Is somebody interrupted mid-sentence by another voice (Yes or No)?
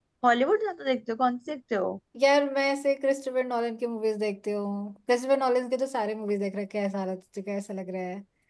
No